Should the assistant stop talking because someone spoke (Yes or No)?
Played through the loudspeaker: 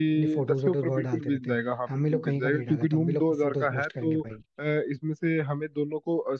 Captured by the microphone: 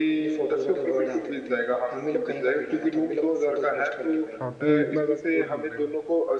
Yes